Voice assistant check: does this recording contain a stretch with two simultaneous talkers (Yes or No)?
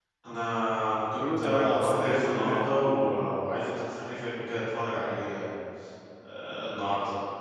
Yes